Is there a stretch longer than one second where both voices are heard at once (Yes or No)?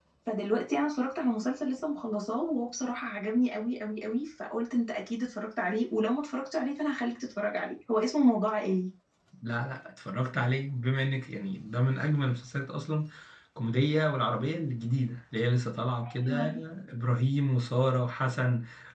No